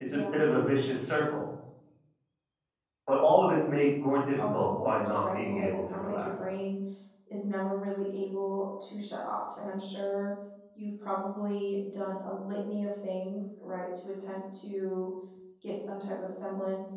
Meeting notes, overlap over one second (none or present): present